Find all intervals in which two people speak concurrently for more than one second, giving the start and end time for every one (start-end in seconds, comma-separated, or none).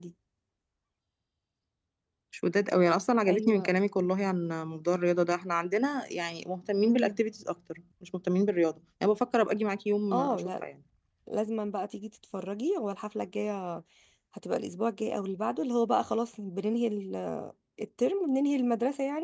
none